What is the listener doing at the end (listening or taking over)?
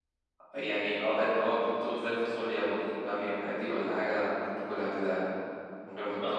taking over